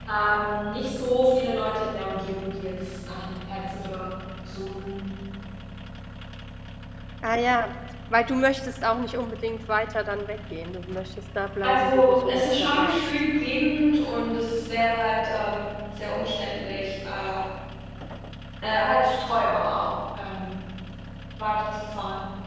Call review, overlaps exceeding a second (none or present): present